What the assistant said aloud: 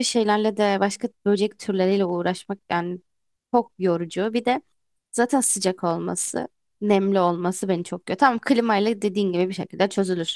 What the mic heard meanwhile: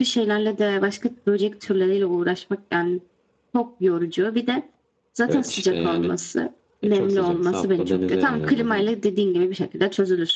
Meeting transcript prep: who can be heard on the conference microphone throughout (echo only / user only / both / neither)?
both